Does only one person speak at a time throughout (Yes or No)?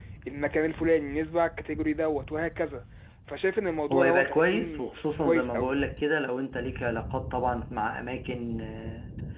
No